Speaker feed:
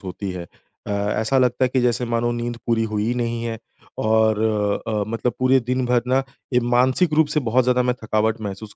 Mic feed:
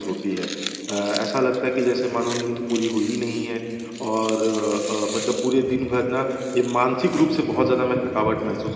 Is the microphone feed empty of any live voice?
Yes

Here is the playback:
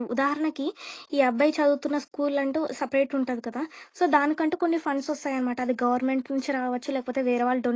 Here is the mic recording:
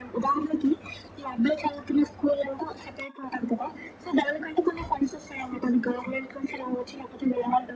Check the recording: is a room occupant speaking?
No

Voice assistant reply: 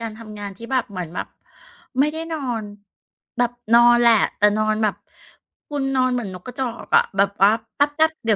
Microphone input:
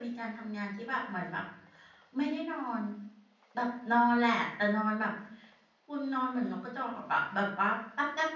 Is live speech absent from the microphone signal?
Yes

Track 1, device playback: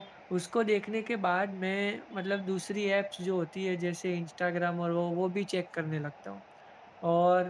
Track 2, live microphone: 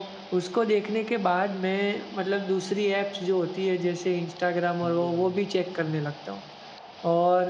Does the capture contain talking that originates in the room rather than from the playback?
Yes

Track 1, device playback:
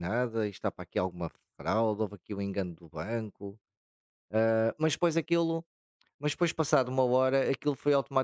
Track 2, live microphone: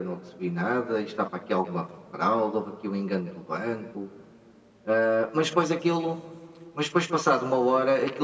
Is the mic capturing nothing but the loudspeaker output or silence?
Yes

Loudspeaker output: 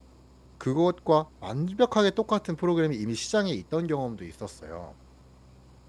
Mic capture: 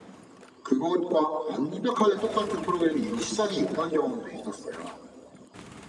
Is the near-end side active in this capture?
No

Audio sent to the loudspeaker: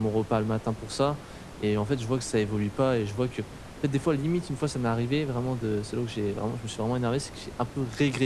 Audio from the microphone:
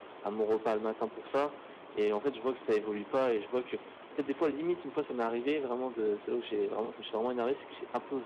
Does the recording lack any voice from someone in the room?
Yes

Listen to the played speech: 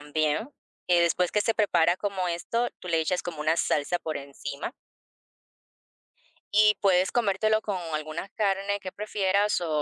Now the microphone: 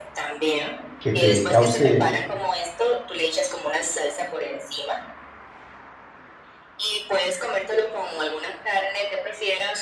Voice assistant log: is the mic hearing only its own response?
No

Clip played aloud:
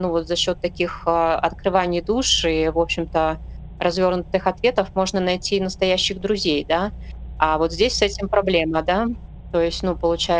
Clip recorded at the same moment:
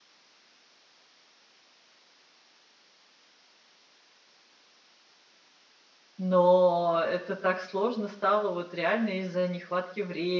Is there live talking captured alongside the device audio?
Yes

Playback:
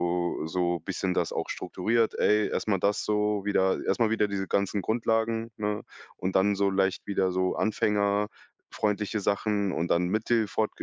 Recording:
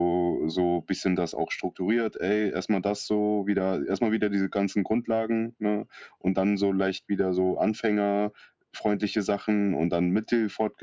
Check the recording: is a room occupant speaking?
No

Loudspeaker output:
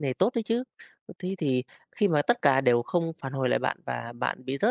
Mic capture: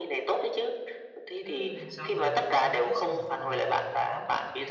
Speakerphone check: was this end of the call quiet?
No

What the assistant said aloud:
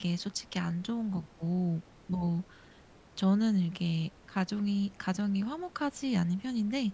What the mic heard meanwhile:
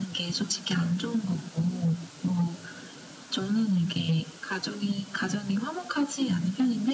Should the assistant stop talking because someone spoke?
No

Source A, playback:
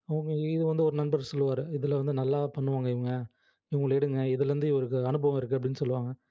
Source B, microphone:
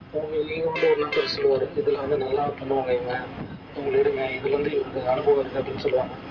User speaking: No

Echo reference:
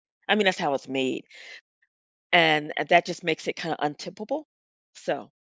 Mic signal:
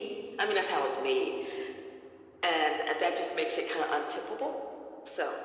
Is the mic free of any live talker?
Yes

